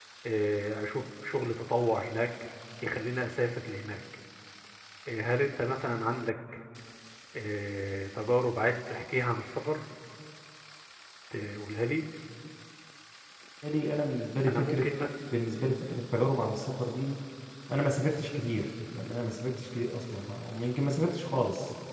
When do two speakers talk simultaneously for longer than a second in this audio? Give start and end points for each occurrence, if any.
none

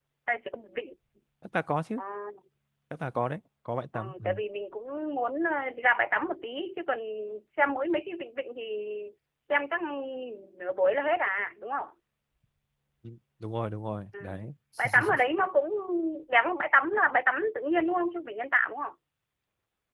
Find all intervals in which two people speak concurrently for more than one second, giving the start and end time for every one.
none

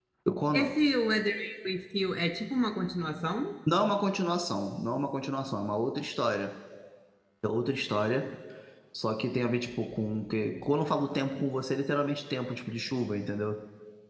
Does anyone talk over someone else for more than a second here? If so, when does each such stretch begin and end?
none

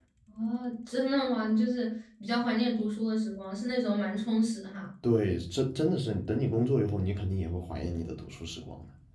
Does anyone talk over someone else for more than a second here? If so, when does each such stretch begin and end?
none

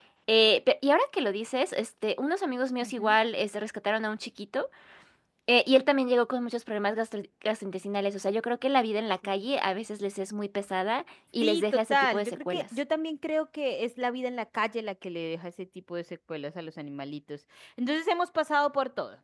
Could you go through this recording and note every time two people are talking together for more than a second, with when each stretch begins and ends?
11.4-12.6

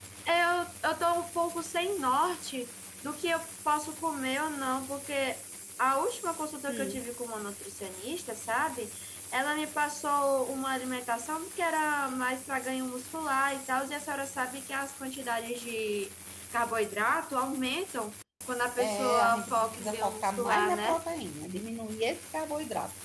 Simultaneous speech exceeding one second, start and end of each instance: 18.8-21.0

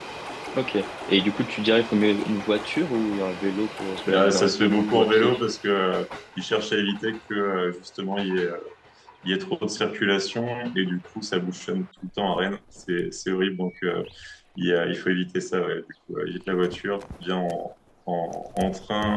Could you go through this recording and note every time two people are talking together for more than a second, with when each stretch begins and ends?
4.1-5.3

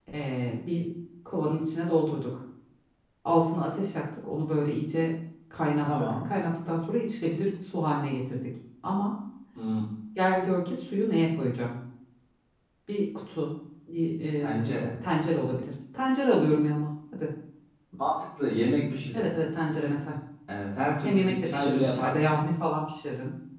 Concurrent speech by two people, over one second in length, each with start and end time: 21.0-22.4

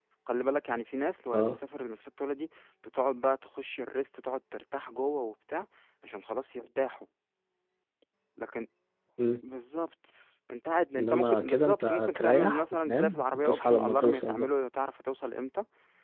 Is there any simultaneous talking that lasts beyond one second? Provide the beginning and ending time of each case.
11.0-14.5

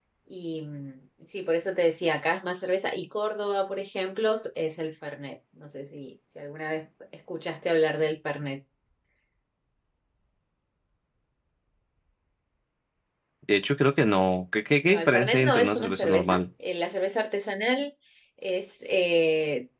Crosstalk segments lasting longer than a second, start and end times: 14.9-16.4

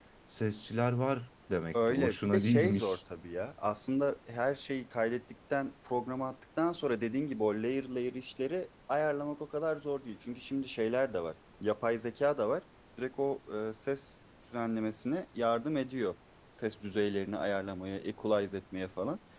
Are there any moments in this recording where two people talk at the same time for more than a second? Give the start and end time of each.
1.7-3.0

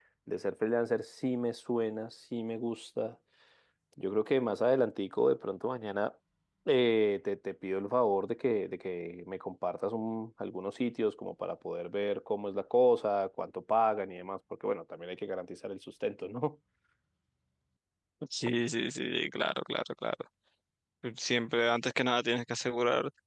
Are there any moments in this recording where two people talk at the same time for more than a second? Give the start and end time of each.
none

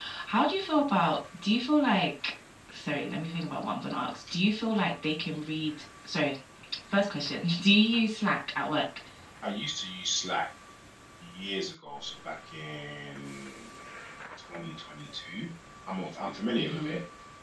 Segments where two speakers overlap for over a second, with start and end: none

